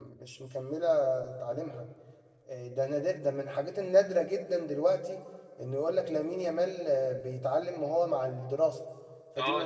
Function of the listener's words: taking over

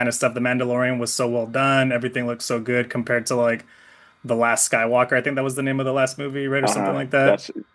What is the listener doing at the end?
taking over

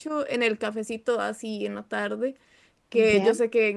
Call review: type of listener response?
listening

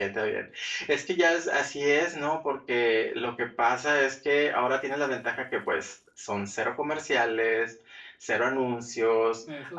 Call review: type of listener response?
listening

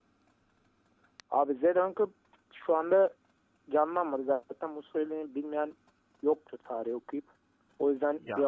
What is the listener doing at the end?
taking over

